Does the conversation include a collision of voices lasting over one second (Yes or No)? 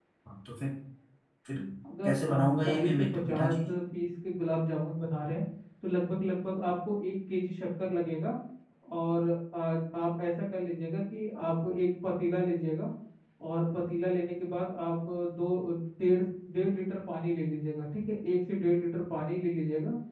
Yes